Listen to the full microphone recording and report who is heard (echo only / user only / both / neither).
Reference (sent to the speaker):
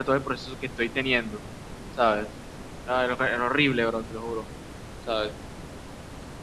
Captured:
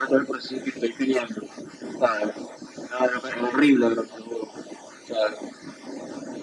echo only